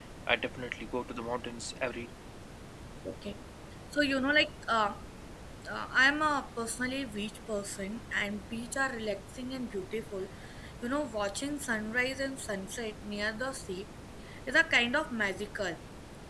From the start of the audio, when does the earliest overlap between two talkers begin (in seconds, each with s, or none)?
none